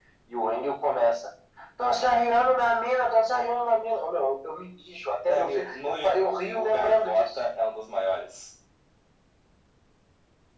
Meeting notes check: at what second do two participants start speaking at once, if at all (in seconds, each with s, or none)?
5.2 s